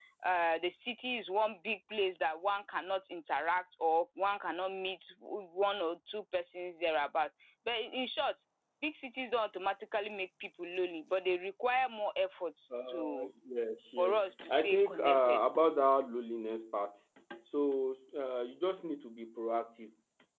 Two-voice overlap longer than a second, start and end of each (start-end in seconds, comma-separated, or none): 14.0-15.4